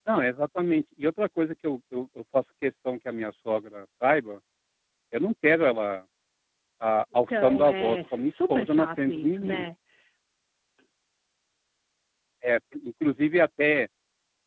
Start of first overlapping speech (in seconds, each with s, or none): 7.3 s